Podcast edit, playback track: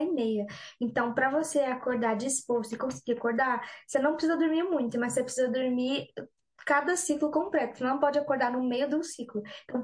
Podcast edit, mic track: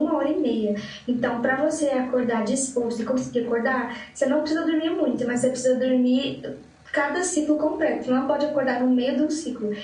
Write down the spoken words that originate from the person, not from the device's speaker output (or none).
none